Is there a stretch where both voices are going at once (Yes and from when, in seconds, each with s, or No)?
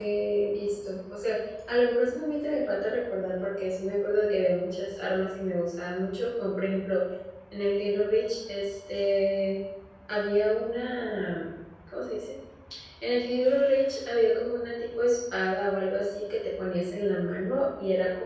No